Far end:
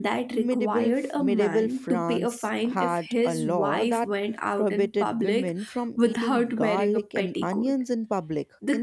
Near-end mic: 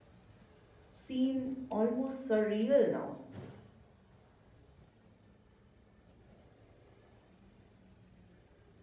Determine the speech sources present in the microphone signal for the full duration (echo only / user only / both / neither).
user only